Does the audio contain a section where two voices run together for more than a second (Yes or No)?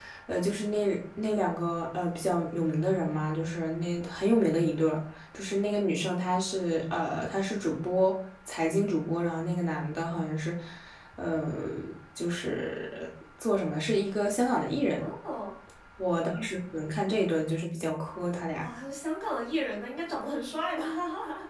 No